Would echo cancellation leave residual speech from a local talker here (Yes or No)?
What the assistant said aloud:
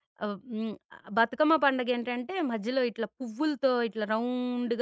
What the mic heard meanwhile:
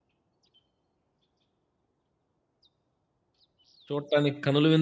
Yes